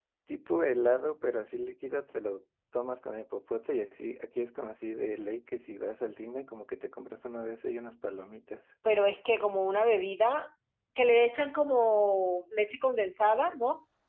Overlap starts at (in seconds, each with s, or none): none